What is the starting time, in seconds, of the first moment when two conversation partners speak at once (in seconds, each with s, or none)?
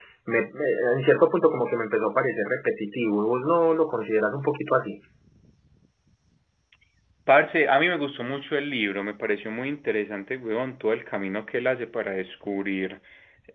none